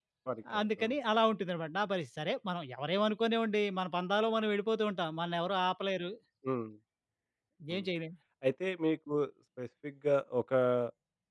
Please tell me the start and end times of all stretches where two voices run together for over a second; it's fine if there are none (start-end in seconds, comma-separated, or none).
none